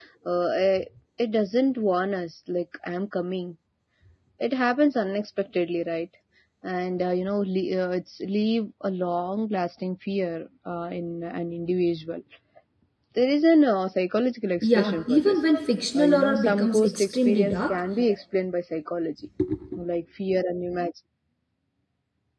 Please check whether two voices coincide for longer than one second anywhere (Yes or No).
Yes